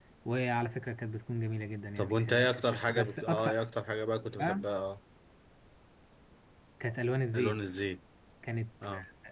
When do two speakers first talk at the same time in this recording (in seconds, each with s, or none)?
2.0 s